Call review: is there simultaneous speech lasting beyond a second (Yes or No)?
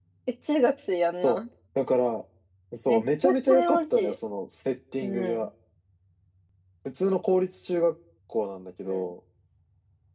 Yes